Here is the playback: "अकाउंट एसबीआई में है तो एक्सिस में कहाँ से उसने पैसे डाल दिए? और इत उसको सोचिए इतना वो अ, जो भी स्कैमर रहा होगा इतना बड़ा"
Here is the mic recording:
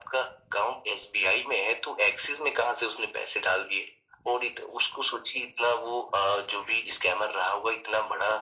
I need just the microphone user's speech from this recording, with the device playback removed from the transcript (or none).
none